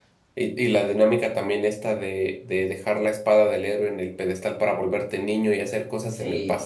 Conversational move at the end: listening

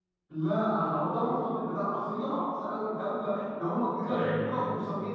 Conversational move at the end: listening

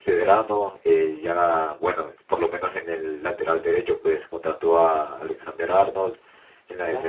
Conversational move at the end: listening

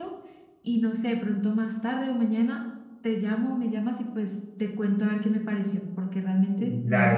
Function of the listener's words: taking over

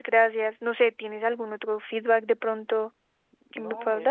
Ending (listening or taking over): taking over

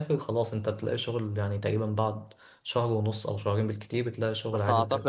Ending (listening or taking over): taking over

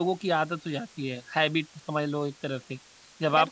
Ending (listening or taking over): taking over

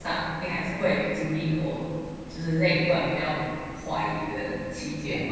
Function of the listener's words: taking over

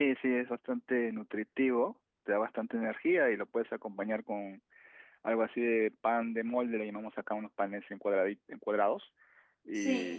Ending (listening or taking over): listening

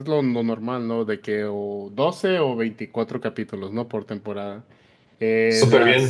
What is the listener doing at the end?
taking over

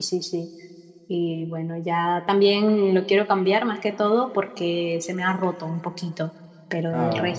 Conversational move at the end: listening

